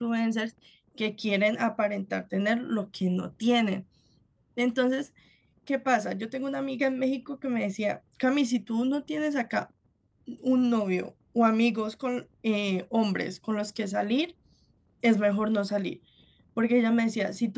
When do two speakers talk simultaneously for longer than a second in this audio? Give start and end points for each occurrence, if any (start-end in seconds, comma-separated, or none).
none